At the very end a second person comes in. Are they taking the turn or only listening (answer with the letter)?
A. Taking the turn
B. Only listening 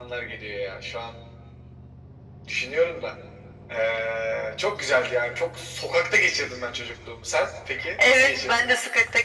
A